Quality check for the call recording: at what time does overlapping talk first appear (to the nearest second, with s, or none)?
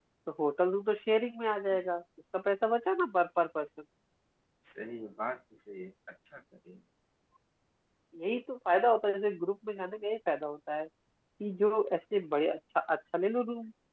none